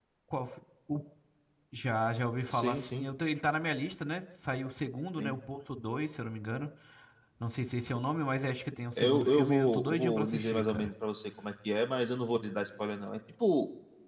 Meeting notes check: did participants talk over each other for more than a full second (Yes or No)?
Yes